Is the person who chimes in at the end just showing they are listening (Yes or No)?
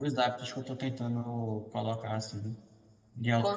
No